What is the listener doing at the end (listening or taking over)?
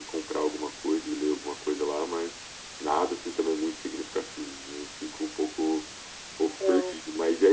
listening